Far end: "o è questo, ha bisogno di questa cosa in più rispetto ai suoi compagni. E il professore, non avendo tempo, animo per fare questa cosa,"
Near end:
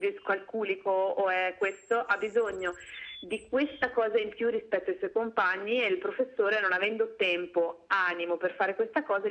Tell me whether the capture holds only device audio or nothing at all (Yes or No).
Yes